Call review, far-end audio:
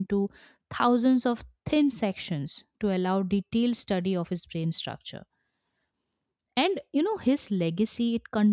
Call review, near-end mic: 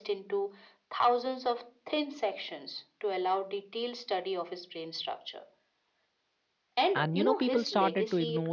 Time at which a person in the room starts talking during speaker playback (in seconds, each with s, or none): 6.9 s